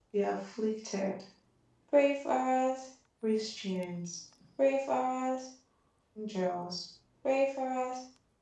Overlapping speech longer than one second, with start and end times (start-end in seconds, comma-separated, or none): none